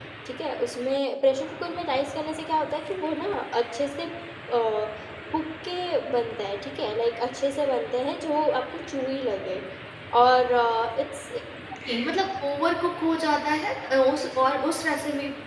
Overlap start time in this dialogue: none

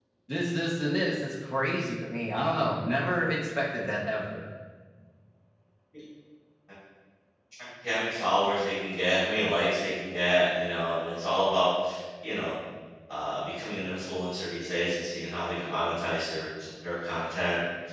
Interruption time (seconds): none

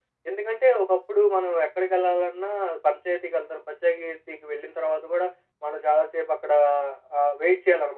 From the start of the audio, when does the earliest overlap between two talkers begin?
none

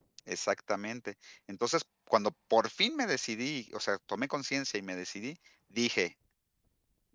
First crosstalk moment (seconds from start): none

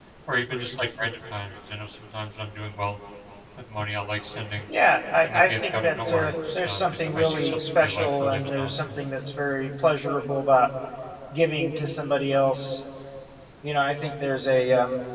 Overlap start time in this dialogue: 5.2 s

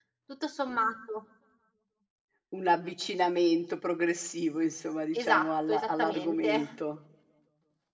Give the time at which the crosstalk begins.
5.1 s

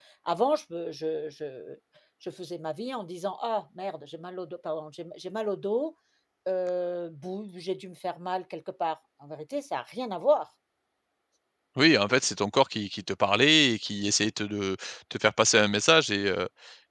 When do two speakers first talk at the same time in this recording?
none

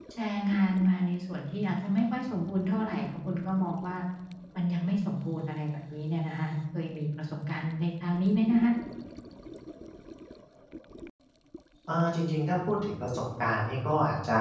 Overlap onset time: none

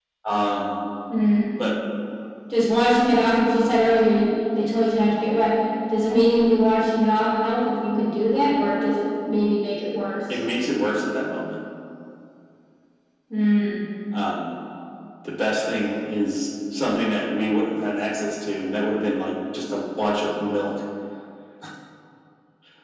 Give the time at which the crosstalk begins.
none

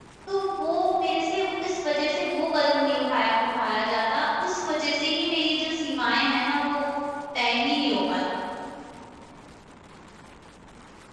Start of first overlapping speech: none

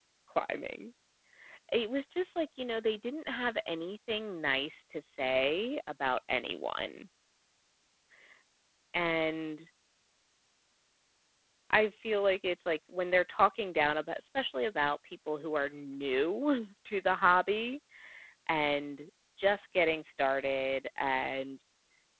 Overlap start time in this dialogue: none

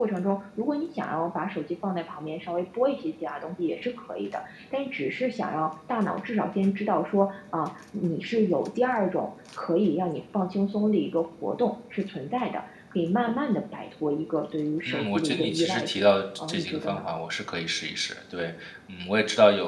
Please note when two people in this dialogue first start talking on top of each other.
14.9 s

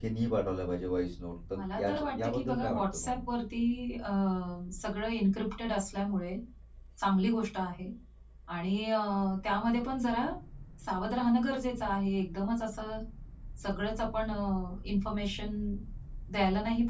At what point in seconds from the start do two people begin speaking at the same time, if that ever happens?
1.5 s

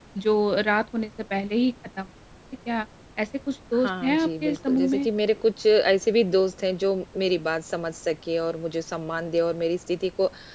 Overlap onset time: 3.8 s

